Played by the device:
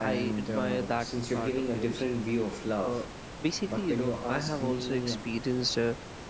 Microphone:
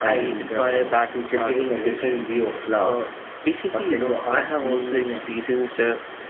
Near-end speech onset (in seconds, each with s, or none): none